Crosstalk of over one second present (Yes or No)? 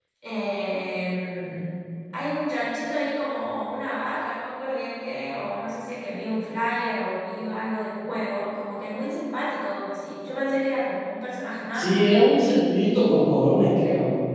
No